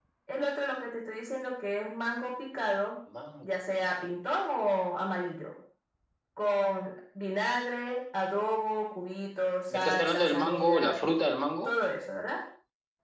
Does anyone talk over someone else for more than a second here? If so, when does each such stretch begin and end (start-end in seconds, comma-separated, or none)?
9.7-10.9